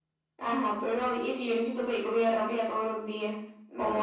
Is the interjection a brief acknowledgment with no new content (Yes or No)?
No